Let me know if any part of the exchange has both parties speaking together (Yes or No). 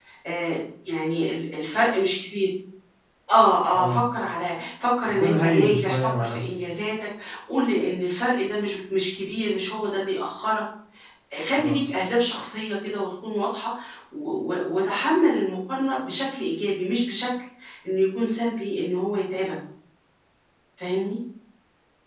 Yes